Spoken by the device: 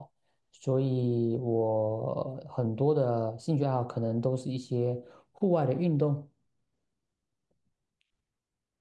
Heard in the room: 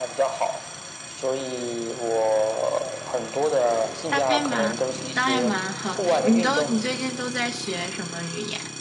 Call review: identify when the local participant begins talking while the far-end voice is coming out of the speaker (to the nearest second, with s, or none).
4 s